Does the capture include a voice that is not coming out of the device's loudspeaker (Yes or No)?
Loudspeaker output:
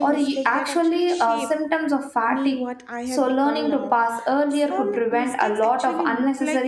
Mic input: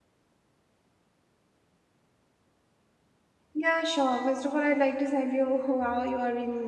Yes